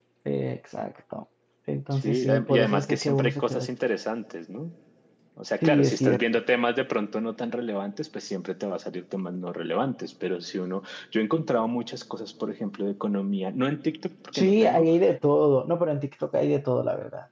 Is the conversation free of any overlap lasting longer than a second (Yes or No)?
No